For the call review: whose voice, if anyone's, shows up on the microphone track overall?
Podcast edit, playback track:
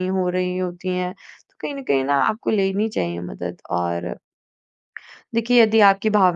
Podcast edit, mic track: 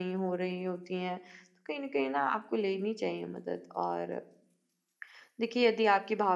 echo only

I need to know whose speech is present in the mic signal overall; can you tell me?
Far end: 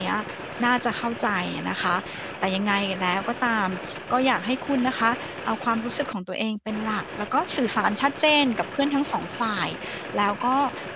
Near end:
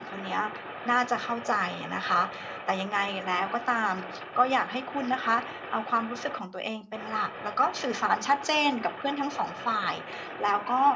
echo only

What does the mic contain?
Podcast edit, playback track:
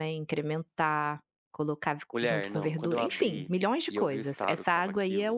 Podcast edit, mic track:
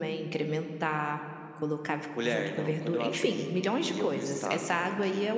echo only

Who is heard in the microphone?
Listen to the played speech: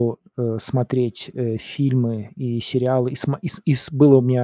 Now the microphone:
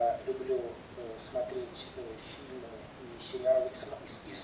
echo only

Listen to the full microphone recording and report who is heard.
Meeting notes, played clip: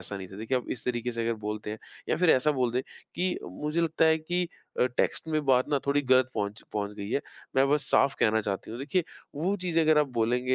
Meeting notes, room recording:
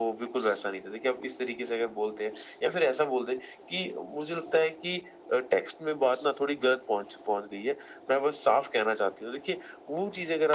echo only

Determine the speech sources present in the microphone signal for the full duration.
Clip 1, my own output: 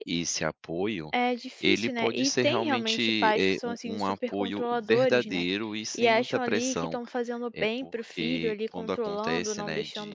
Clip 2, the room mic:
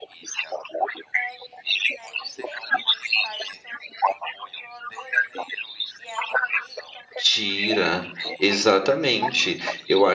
both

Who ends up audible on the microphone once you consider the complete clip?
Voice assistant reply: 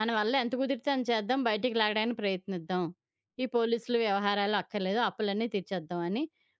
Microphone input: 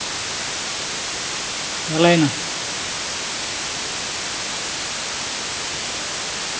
user only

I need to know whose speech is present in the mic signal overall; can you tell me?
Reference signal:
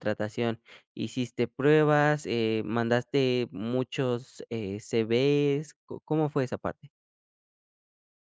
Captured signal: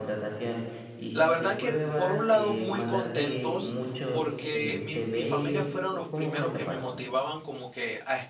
both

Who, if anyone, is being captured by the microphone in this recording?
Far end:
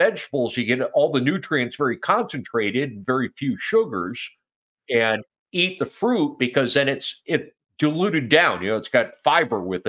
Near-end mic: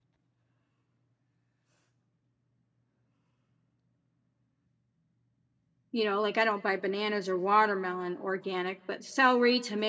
user only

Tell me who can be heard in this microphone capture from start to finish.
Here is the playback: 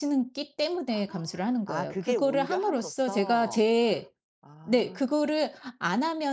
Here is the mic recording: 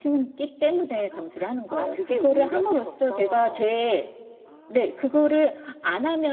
echo only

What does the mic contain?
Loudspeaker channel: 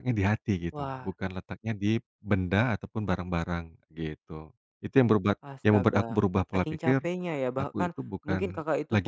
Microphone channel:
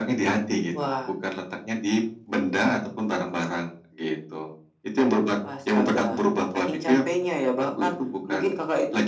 echo only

